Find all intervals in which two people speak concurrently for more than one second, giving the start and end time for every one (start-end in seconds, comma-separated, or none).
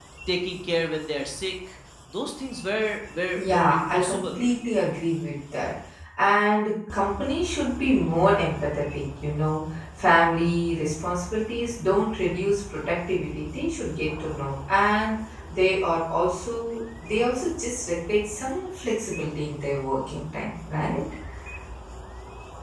3.4-4.5